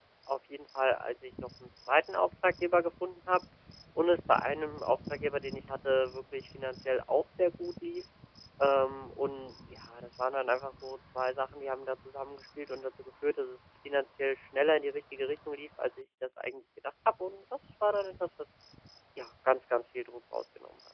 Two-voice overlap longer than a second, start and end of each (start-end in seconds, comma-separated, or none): none